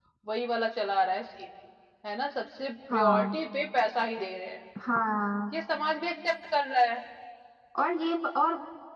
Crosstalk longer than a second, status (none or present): none